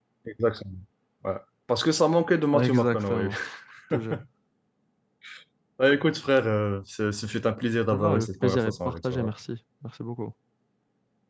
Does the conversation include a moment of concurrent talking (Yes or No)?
Yes